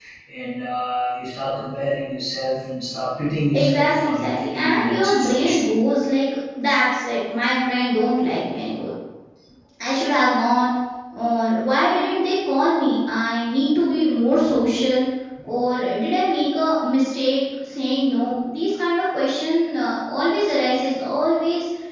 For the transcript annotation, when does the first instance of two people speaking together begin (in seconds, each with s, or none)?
3.5 s